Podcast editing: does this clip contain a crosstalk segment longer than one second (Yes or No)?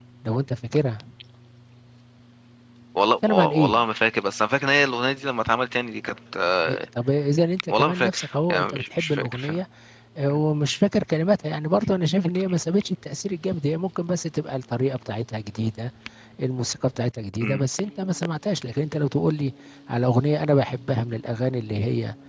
Yes